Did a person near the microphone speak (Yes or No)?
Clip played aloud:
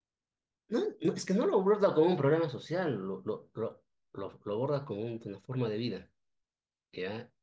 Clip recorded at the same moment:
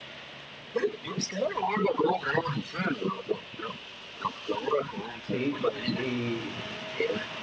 Yes